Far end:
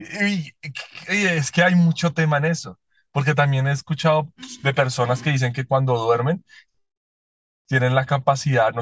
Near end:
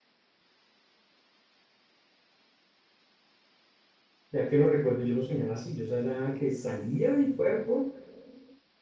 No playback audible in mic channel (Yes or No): Yes